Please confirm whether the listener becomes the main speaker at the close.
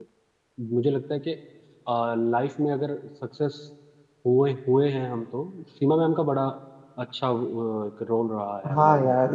Yes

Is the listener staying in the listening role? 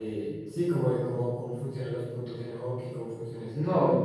No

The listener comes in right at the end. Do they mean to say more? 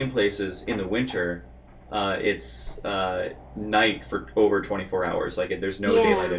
Yes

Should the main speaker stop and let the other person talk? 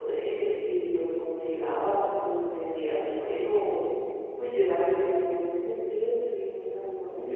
Yes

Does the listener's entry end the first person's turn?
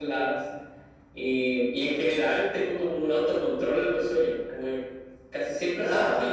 No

